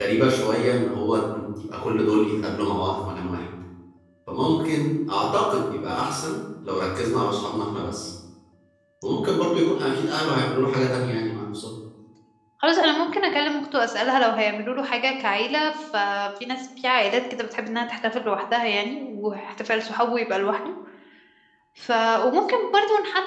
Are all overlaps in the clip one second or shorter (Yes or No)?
Yes